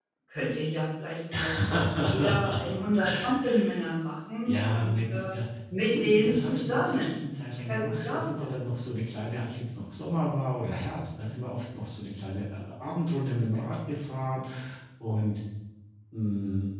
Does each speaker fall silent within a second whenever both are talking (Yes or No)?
No